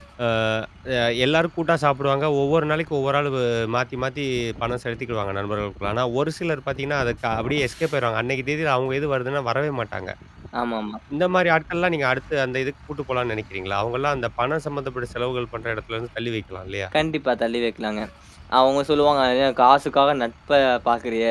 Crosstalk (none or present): none